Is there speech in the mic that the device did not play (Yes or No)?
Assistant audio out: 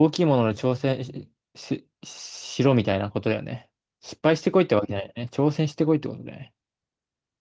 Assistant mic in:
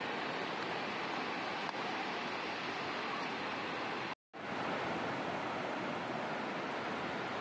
No